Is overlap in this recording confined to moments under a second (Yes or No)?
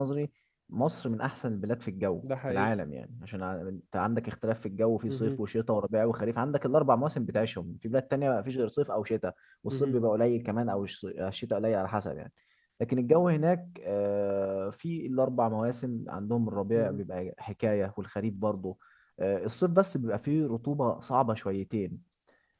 Yes